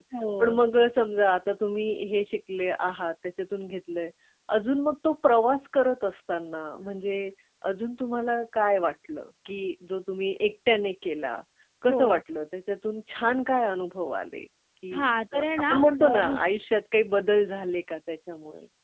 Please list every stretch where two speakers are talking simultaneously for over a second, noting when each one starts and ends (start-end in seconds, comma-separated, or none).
14.9-16.4